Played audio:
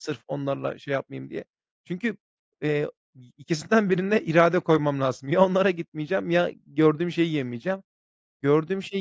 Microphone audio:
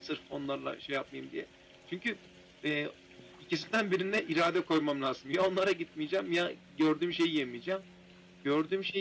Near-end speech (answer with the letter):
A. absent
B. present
A